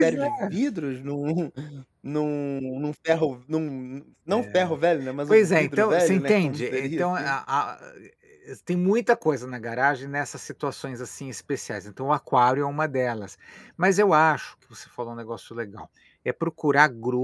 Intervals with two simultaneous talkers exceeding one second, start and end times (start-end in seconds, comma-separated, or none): 5.3-7.3